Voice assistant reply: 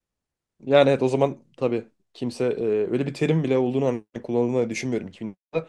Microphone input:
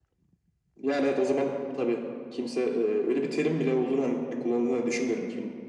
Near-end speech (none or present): none